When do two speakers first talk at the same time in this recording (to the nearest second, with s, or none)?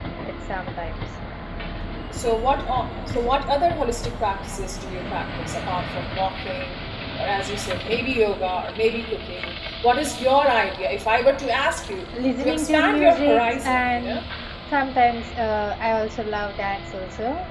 12 s